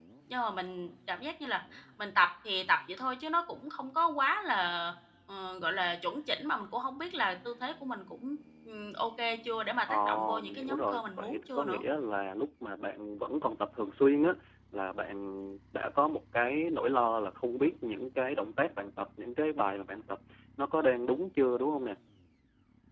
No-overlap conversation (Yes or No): No